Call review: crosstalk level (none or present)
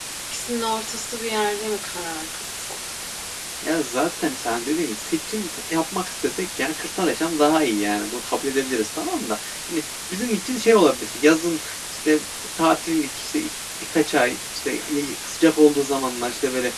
none